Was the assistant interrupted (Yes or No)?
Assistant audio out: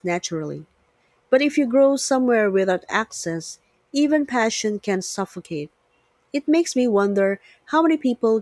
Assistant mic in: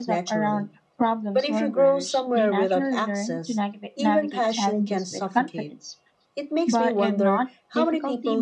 Yes